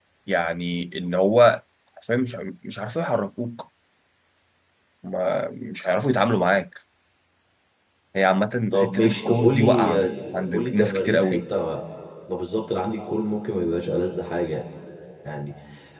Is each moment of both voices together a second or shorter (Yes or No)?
No